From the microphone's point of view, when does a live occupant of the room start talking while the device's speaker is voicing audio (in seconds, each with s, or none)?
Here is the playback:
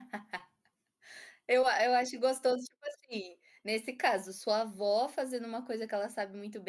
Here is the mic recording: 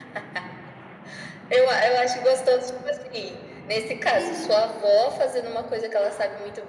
4.1 s